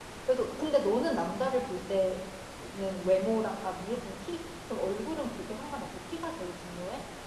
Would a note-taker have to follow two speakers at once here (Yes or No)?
No